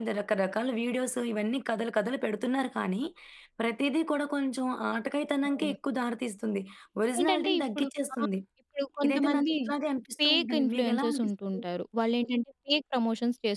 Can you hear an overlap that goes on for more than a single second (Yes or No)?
Yes